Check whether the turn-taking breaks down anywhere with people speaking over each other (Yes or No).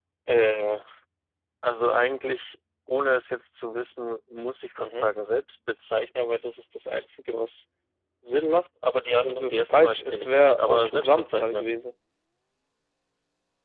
Yes